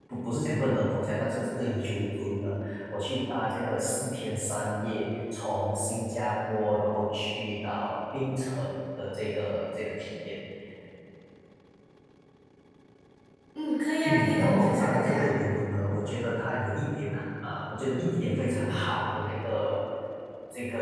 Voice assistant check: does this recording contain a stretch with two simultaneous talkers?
Yes, from 14.1 s

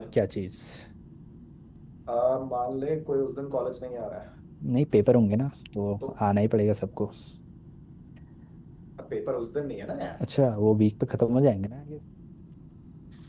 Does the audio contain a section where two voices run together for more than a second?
No

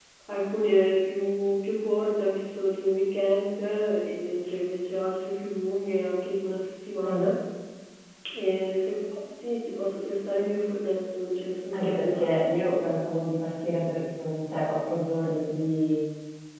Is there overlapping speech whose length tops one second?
No

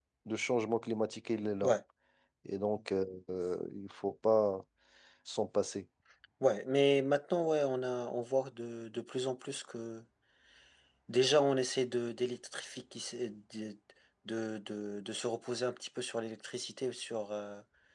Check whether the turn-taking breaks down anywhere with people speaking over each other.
No

